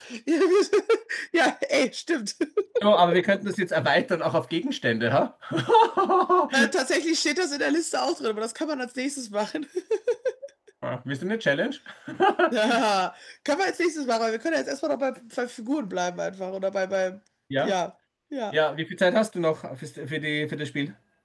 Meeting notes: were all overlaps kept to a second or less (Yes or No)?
Yes